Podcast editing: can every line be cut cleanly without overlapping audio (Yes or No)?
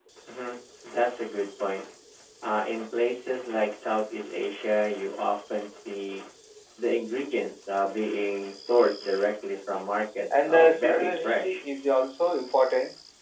No